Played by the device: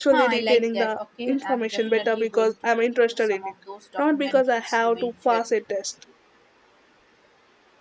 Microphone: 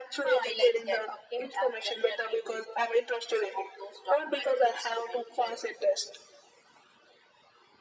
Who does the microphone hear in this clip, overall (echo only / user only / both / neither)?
echo only